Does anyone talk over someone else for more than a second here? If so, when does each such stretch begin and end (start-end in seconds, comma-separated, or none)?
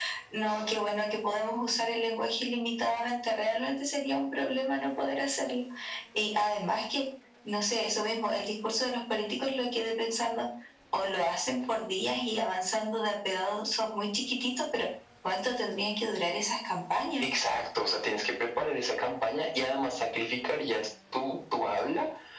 none